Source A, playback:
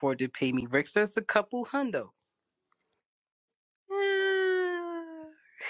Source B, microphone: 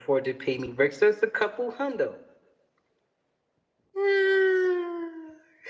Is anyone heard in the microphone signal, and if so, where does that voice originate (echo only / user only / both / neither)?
echo only